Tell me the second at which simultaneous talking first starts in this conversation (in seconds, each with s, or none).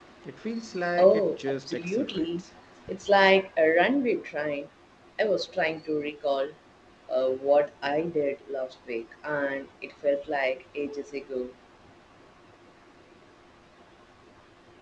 1.0 s